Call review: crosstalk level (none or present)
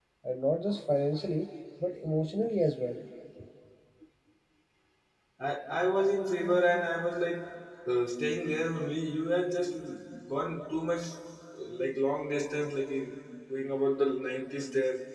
none